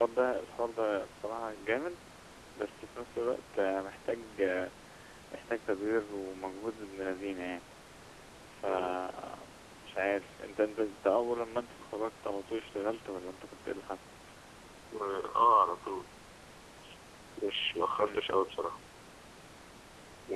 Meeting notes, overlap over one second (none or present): none